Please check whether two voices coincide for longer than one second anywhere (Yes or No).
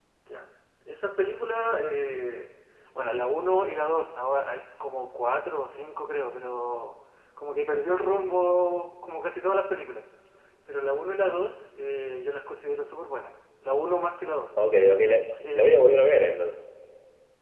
No